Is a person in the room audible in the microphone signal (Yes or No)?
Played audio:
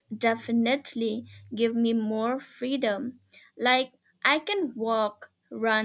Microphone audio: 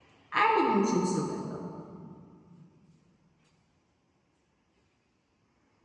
Yes